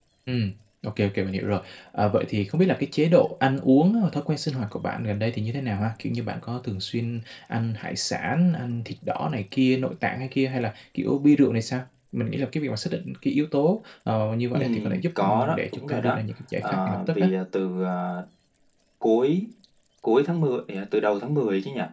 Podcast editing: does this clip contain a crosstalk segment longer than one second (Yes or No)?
Yes